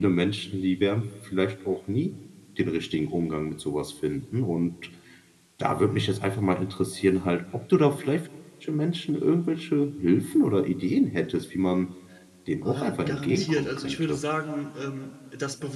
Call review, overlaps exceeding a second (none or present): present